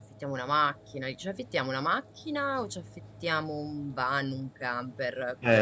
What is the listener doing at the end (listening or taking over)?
taking over